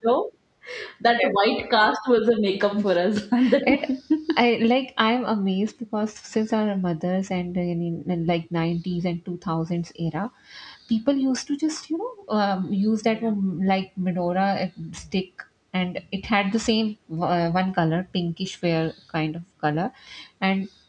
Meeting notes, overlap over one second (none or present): none